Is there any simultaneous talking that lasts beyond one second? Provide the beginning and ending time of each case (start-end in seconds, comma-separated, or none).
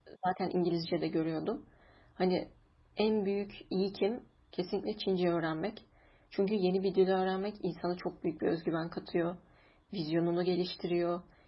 none